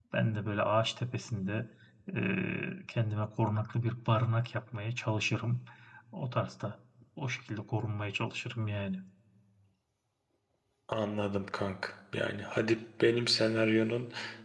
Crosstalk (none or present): none